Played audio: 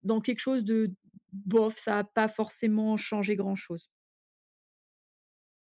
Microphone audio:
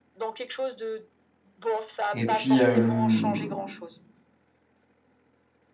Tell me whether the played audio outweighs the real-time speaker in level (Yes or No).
No